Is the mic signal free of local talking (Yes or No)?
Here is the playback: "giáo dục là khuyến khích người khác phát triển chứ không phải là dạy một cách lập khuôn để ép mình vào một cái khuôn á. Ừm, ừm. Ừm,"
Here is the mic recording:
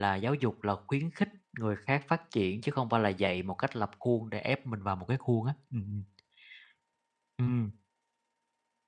Yes